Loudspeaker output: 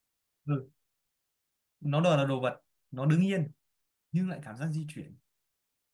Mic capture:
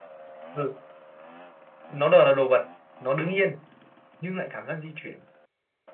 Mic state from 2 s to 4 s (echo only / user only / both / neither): echo only